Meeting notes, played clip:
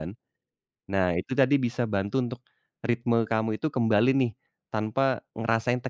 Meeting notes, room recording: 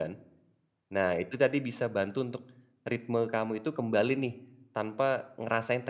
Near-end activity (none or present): none